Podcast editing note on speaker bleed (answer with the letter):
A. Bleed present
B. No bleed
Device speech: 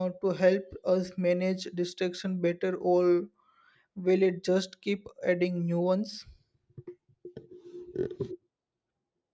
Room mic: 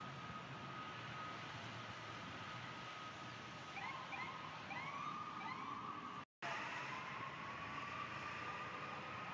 B